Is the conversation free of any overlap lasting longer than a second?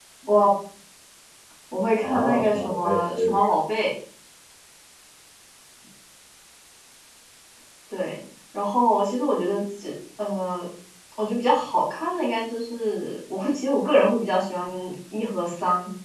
No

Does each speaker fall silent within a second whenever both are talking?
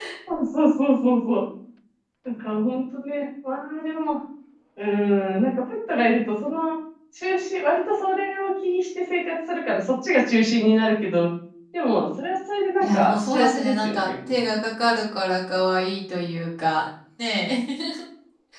No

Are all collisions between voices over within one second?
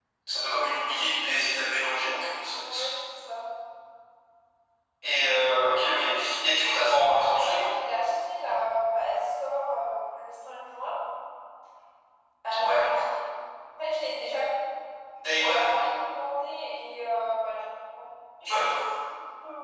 Yes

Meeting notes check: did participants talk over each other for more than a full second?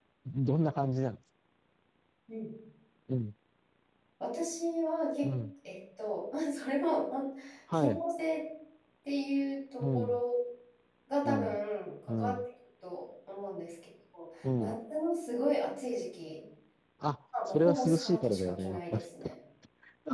Yes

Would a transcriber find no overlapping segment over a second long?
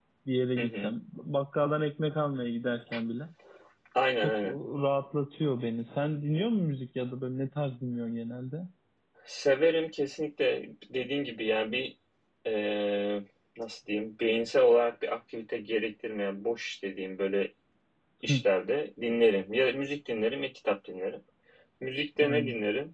Yes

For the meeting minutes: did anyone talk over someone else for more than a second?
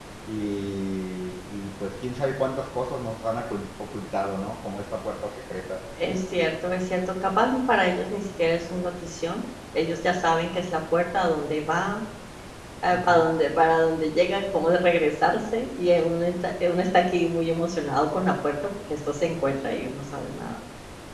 No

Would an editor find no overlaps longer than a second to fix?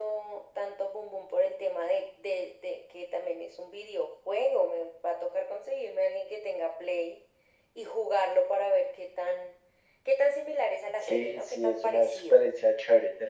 No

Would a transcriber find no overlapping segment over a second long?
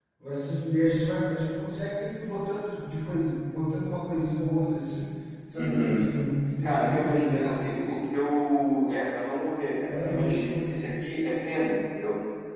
No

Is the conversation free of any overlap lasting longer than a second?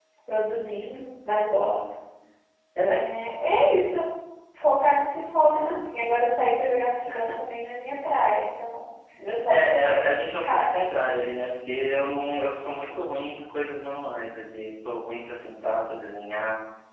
No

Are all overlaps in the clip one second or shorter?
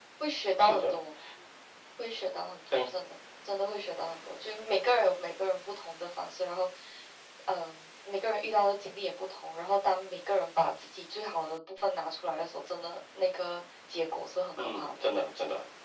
Yes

